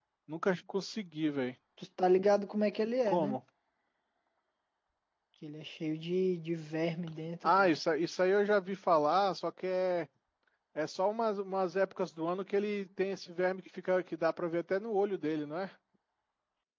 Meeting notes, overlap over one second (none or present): none